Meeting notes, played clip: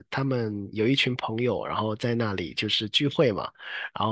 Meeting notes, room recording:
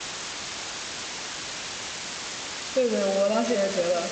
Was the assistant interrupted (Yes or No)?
Yes